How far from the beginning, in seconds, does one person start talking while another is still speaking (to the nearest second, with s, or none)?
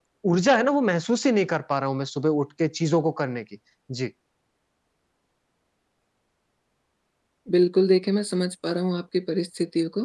none